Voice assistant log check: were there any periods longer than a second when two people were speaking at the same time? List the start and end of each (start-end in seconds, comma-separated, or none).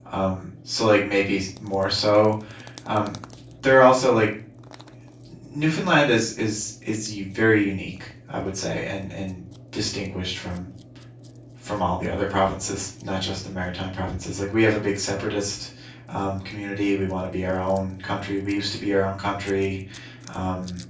none